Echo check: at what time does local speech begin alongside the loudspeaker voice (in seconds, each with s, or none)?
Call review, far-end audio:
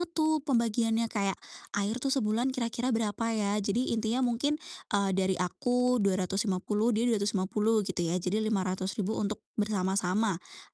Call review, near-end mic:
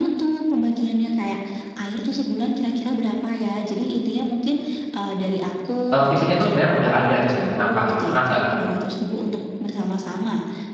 5.9 s